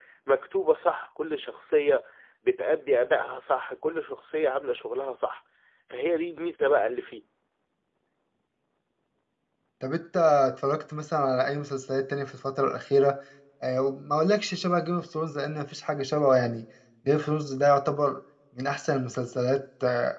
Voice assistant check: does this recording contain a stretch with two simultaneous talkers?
No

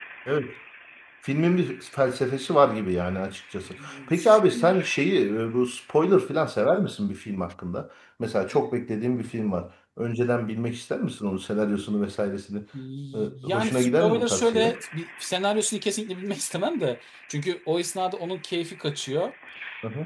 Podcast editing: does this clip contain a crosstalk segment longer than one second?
Yes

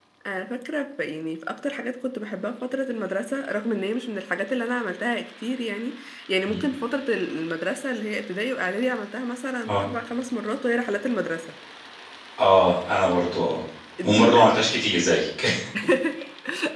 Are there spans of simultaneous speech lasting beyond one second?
No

